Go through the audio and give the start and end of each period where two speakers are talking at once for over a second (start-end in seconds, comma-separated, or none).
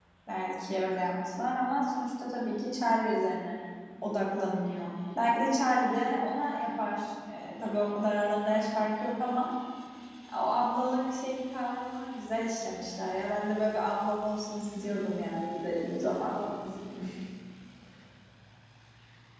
14.8-16.3